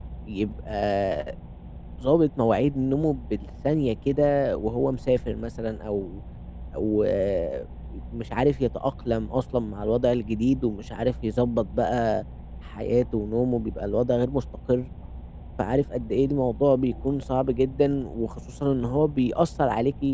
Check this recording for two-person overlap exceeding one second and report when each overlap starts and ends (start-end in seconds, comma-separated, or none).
none